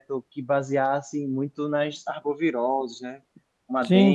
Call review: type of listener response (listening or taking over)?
taking over